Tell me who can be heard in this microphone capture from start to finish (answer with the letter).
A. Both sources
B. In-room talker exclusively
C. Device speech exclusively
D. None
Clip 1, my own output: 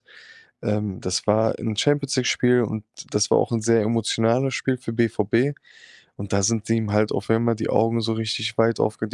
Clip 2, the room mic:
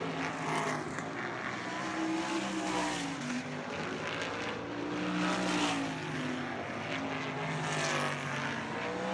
D